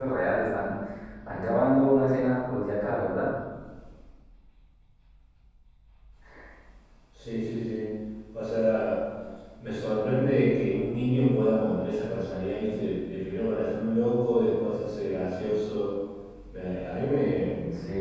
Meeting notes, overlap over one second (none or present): none